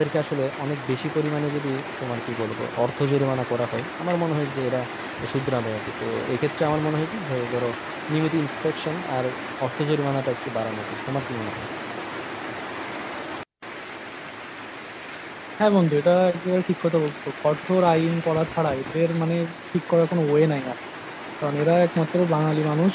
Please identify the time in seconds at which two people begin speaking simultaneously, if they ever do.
none

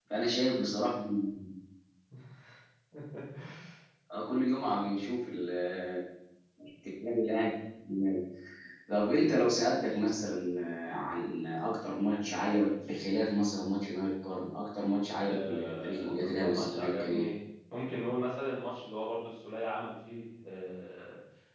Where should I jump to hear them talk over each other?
15.3 s

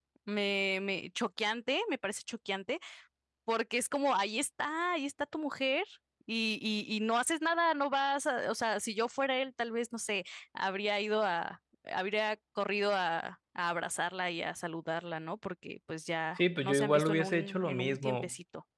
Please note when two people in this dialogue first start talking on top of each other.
16.4 s

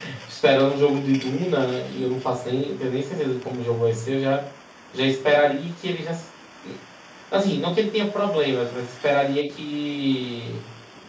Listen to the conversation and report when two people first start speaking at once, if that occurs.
none

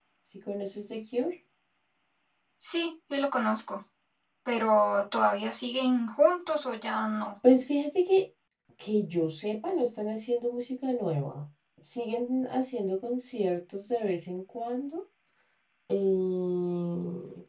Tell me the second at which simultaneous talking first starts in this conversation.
none

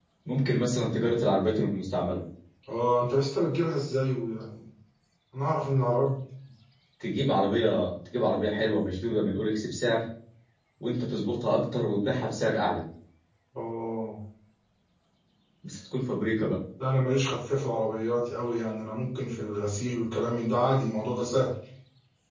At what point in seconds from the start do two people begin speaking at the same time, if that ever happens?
none

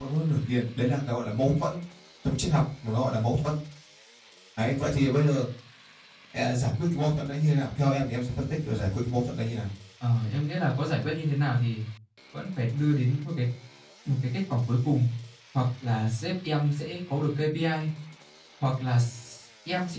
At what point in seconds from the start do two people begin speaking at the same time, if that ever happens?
none

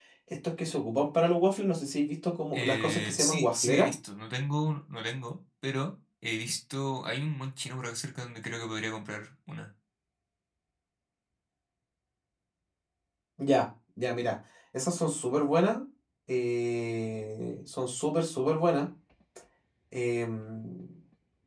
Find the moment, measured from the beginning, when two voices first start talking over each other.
2.5 s

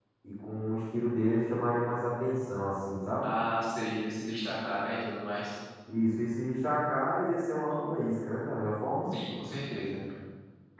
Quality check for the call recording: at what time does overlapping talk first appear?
none

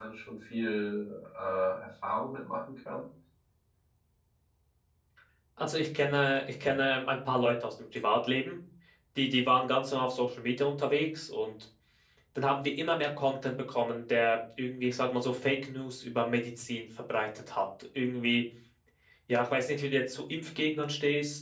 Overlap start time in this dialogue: none

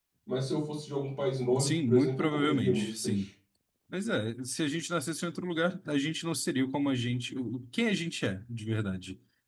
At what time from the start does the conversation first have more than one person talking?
1.5 s

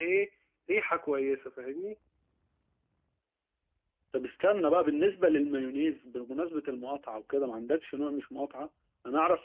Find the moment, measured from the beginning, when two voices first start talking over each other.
none

